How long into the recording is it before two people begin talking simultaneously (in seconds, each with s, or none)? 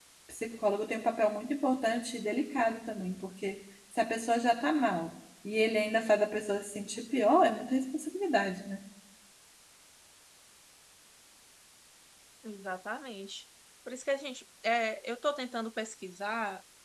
none